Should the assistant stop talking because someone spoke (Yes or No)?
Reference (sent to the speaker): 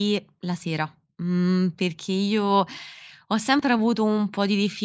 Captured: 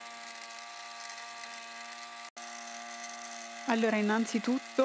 Yes